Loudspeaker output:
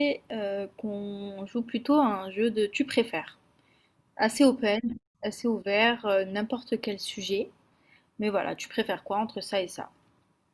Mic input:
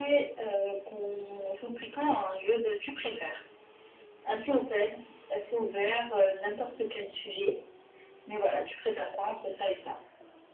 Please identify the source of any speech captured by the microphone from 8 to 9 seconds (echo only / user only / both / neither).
echo only